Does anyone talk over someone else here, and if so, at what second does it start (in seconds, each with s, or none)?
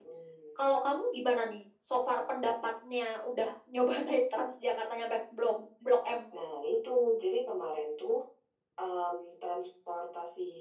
none